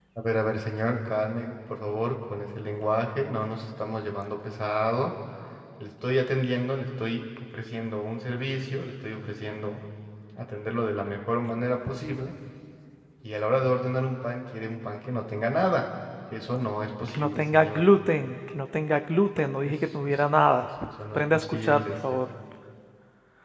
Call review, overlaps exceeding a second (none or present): present